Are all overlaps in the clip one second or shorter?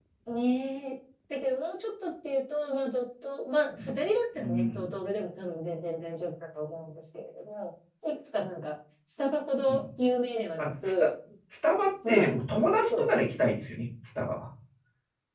Yes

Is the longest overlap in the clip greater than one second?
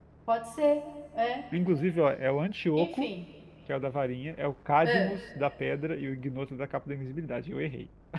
No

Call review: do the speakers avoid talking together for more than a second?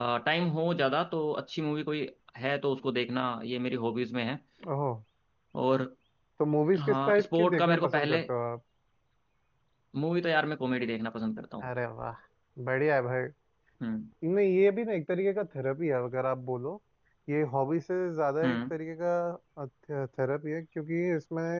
No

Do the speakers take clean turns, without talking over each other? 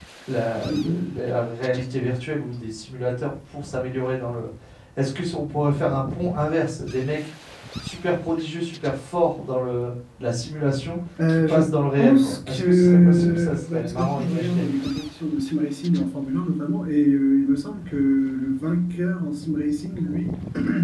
No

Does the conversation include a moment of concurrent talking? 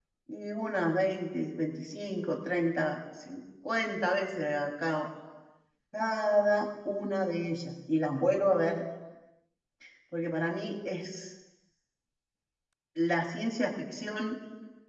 No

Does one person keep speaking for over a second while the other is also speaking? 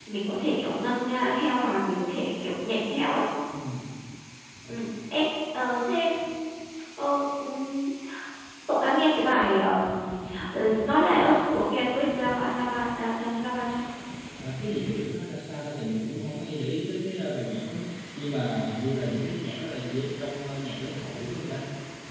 No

